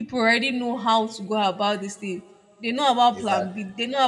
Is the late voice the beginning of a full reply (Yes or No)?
No